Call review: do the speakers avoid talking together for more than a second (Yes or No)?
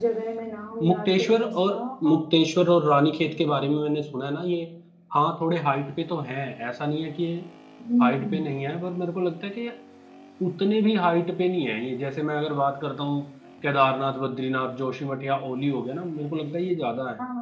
No